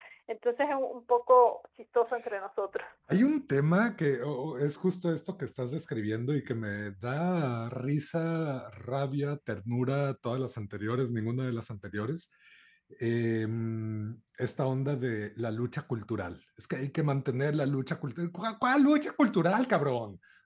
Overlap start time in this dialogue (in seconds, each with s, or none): none